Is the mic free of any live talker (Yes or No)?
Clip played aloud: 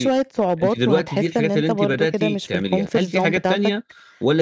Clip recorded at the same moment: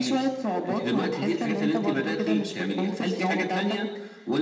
Yes